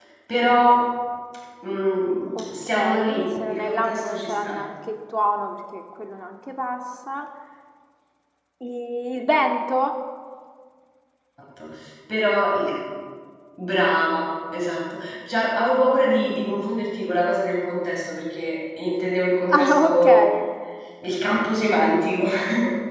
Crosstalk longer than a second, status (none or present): present